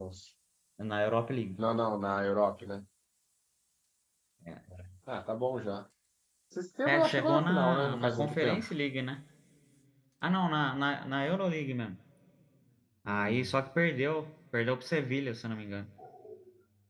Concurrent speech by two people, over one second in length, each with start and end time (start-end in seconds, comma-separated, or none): 6.9-8.7